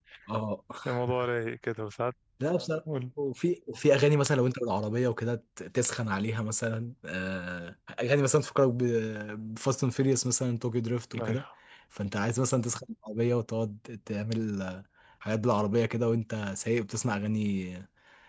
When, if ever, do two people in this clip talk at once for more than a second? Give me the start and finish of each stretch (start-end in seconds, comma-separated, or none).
none